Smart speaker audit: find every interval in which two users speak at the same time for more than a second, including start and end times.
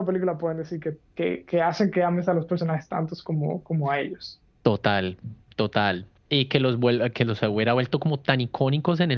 none

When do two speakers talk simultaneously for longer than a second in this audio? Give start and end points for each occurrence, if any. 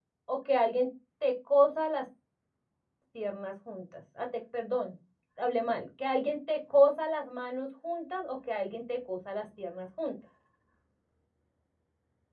none

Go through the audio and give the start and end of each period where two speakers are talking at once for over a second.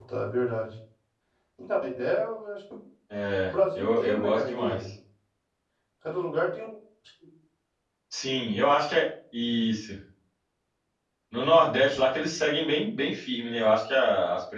3.5-4.8

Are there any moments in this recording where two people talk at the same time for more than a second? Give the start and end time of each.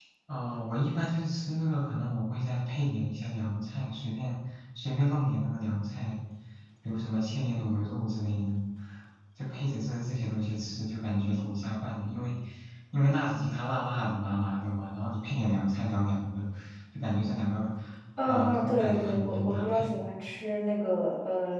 18.3-20.0

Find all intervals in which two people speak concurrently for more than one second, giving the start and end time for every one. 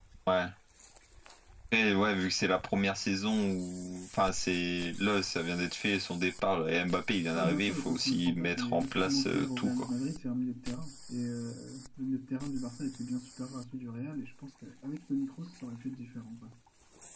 7.3-9.8

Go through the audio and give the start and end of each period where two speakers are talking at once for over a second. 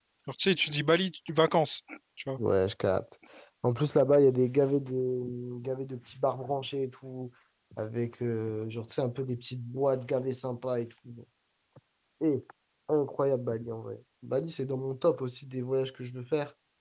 none

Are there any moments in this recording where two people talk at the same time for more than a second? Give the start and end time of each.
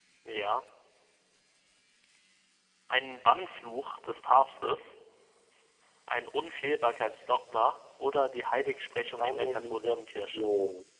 9.2-10.5

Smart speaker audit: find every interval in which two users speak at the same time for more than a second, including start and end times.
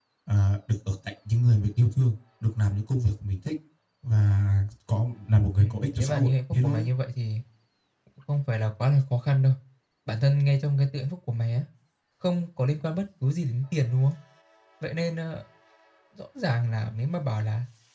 5.6-6.9

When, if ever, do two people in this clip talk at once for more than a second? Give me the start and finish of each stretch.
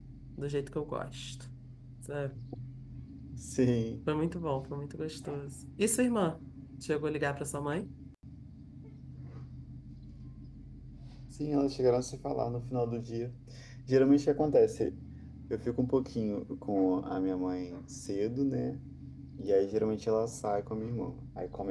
none

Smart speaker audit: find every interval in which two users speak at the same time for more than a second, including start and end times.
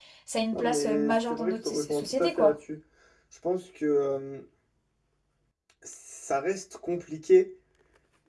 0.5-2.6

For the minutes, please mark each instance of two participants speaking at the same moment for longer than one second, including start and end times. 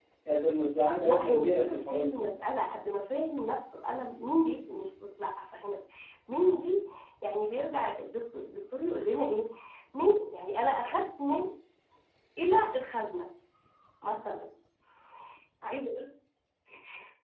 1.0-2.3

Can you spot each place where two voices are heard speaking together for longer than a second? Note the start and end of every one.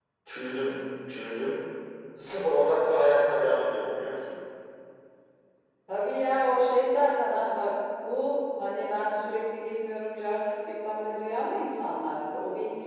none

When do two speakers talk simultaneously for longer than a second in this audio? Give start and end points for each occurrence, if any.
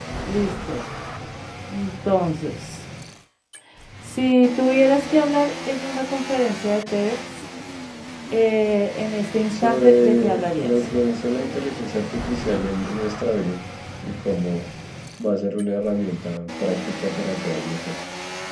9.5-11.0

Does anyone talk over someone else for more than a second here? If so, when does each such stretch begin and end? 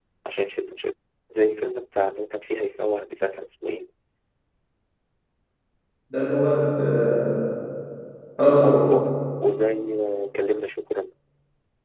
none

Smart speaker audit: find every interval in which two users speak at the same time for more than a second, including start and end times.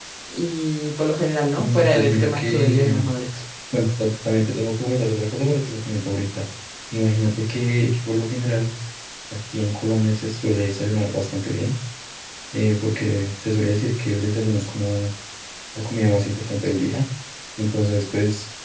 1.6-3.0

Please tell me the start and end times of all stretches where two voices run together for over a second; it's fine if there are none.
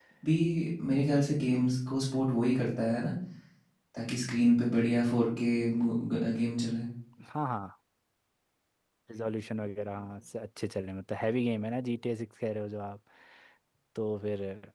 none

